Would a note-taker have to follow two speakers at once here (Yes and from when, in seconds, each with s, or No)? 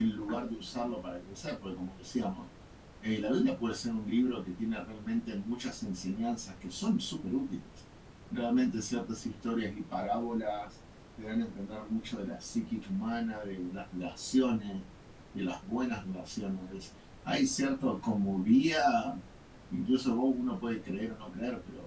No